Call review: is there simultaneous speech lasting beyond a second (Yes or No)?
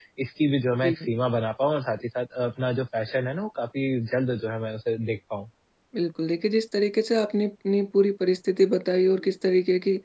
No